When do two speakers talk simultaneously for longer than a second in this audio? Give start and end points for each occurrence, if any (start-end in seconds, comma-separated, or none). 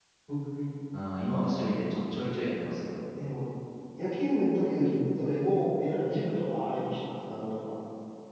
none